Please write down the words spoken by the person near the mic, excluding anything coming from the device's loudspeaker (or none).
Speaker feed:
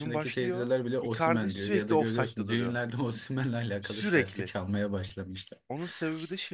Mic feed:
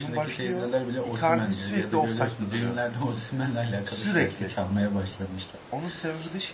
none